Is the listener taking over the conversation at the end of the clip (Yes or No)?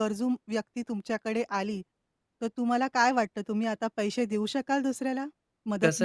Yes